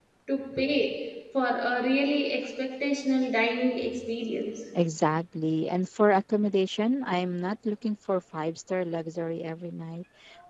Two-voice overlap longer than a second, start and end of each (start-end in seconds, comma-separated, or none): none